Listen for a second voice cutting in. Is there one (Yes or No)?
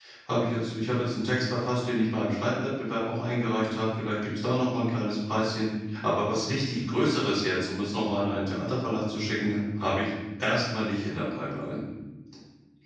No